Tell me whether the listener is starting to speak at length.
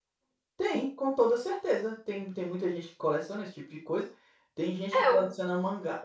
No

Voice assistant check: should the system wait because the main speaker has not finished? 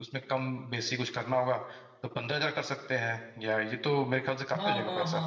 No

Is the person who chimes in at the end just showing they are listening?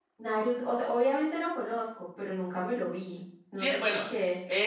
No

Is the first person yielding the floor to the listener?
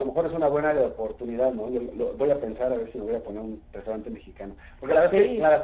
No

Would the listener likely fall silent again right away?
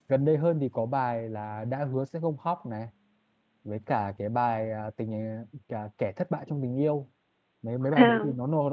Yes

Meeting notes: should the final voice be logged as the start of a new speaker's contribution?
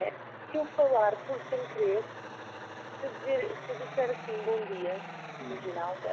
No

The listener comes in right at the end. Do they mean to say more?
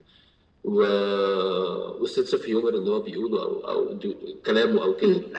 Yes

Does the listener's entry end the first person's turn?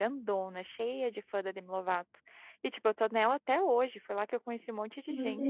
Yes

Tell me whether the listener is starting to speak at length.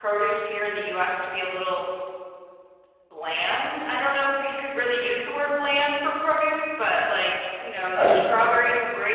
No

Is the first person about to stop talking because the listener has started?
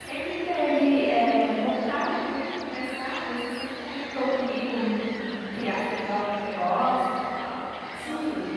Yes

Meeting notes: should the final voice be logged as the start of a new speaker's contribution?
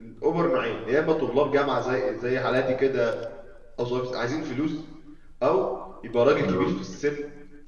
No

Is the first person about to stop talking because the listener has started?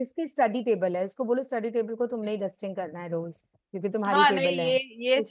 Yes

